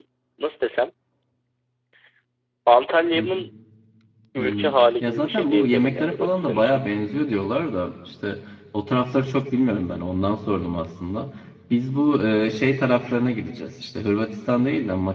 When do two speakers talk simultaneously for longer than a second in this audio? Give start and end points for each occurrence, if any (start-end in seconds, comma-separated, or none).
4.4-6.8